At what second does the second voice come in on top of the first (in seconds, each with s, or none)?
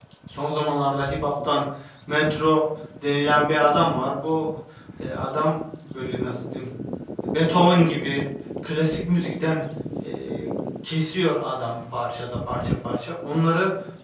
none